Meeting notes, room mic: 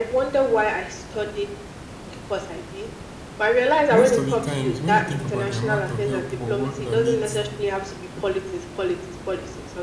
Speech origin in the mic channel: both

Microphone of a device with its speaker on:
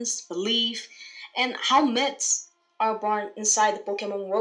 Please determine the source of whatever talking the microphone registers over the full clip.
echo only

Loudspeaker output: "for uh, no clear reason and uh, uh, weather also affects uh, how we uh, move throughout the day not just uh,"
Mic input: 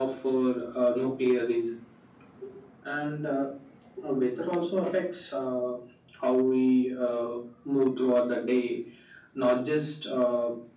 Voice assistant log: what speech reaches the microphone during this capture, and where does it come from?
echo only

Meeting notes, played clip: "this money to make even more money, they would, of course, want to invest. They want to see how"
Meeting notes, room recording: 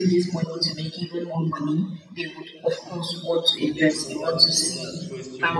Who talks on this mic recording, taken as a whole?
both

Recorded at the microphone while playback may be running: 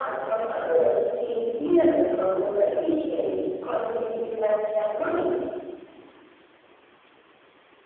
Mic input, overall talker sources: echo only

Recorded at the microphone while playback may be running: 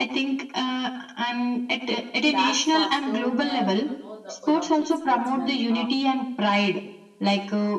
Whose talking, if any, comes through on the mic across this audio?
both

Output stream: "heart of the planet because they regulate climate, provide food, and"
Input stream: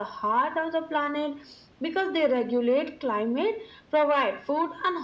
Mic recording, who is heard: echo only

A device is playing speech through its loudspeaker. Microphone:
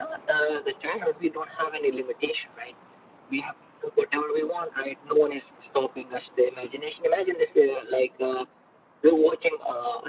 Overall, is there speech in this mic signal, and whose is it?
echo only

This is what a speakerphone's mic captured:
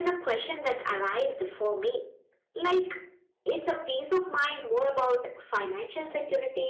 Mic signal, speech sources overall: echo only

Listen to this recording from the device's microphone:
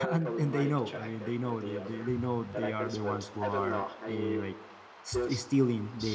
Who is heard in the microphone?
both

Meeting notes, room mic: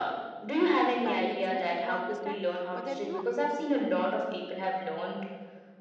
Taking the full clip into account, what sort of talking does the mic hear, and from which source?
both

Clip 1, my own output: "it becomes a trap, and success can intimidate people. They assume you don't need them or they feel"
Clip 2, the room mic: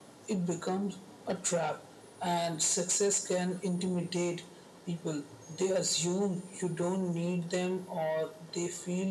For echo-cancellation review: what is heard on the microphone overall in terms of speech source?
echo only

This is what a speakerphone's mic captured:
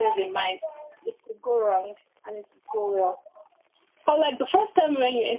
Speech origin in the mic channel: echo only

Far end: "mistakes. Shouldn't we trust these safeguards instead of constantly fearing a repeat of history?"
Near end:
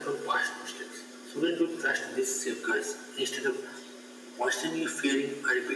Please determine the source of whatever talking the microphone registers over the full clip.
echo only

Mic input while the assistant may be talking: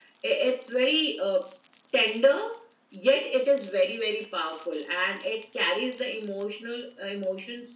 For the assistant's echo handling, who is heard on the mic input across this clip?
echo only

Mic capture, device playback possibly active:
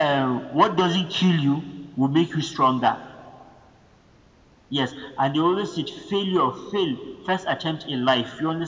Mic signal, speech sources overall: echo only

